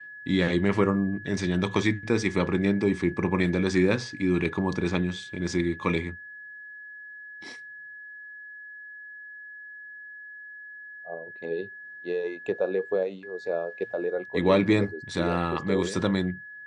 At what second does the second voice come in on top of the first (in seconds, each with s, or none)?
14.3 s